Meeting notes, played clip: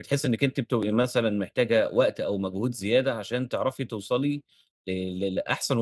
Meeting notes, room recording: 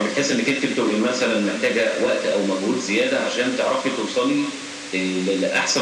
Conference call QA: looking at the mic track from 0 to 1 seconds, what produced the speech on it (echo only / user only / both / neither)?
echo only